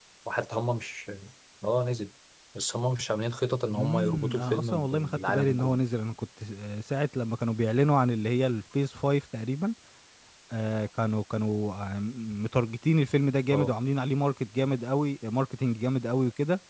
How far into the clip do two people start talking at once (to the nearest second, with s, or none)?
4 s